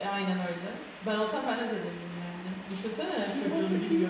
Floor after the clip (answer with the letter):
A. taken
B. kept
A